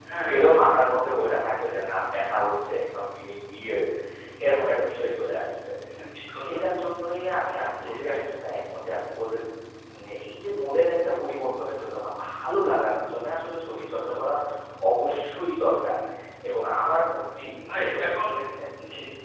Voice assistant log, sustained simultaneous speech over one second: none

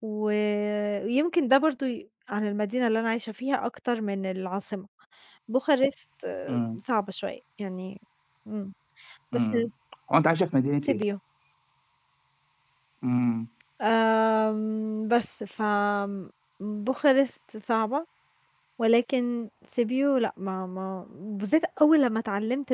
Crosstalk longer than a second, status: none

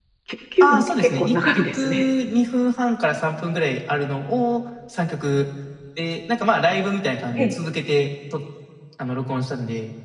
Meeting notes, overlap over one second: present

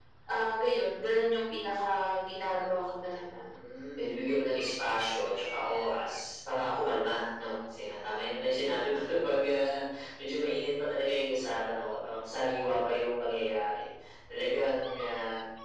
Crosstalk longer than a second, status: none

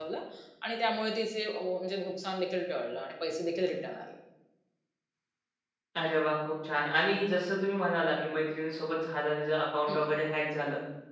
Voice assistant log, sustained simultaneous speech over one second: none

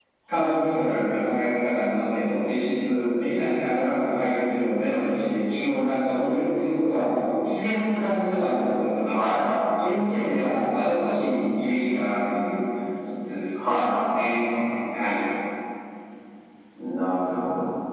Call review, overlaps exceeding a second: none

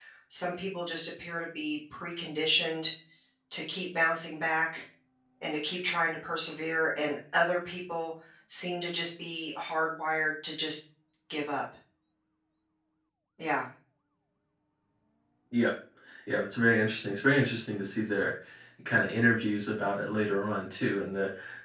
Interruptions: none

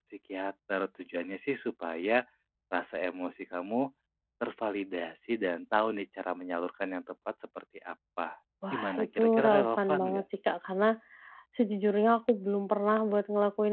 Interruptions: present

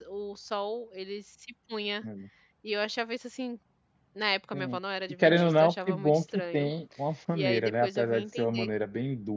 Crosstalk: present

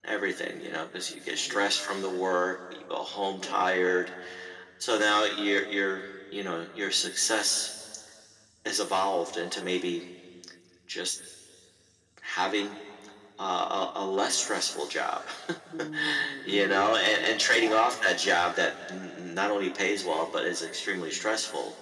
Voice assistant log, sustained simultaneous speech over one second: present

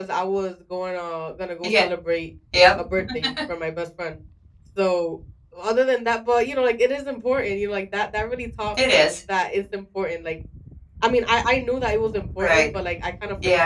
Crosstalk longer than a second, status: none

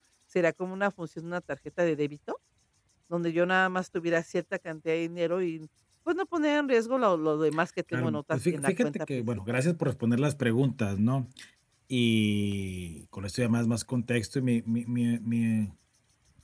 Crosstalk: present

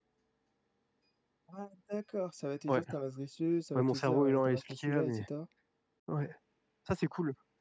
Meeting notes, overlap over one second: present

